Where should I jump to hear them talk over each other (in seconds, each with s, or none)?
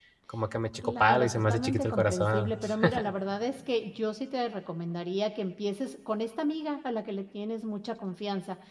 0.8 s